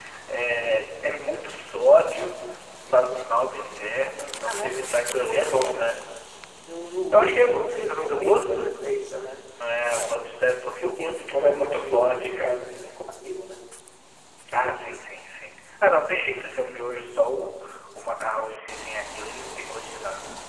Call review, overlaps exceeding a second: present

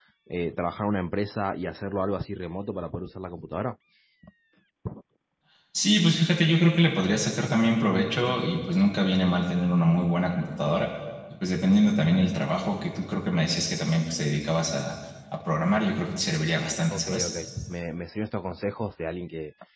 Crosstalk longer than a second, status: none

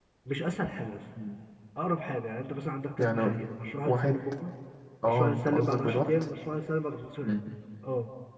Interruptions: present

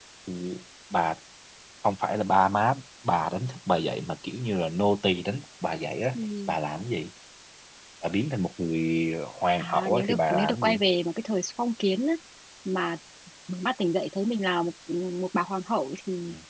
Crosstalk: present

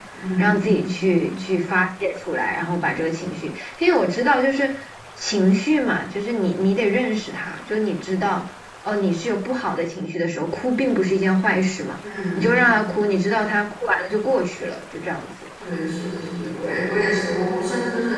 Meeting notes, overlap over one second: none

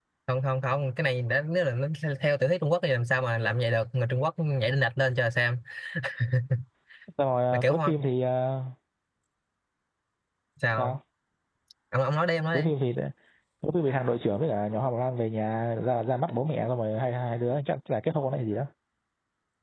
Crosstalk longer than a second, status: none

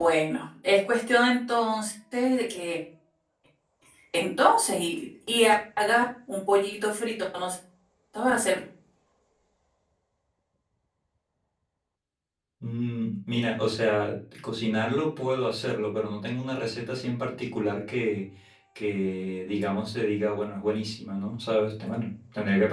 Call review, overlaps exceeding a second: none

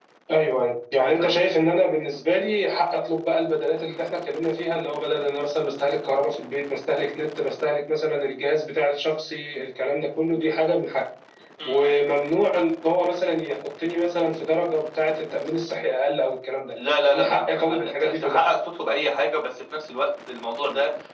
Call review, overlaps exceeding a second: present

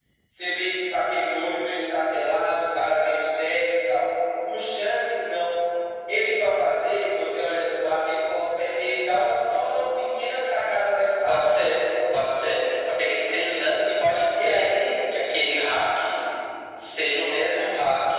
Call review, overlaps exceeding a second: none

